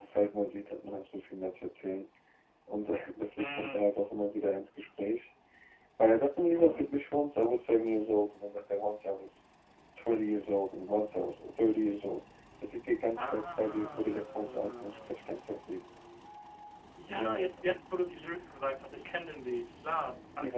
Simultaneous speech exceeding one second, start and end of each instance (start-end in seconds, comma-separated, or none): 13.2-15.4